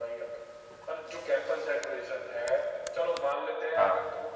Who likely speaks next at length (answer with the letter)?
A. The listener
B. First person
B